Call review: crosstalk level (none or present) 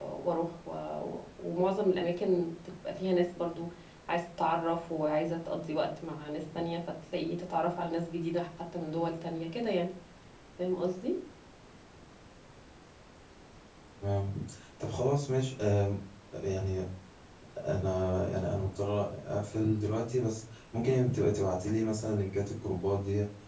none